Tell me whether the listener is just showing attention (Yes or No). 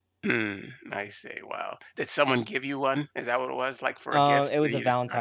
No